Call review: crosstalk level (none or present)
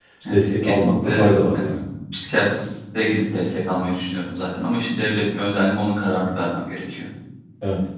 present